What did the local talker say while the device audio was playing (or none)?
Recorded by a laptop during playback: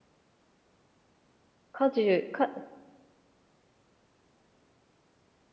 家事、か、